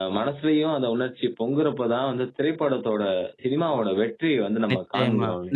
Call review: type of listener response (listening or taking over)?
taking over